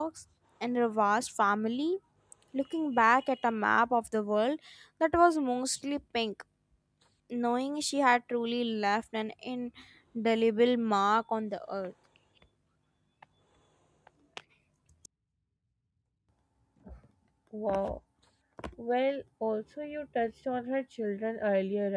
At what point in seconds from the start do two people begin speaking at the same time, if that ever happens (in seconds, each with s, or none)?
none